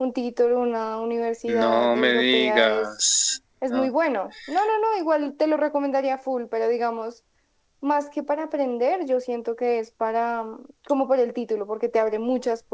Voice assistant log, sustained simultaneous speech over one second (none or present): present